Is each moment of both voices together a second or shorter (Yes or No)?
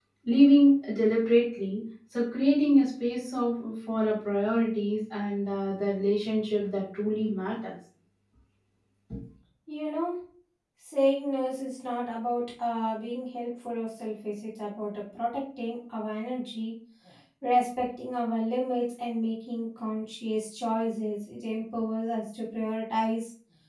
Yes